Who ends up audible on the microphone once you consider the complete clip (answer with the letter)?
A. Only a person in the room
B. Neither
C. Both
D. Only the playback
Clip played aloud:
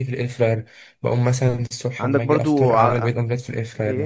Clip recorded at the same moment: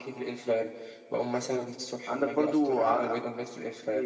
D